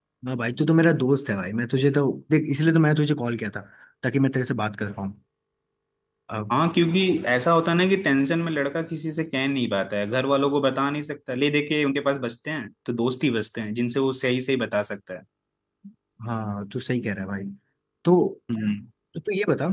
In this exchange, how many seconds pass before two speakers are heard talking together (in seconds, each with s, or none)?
none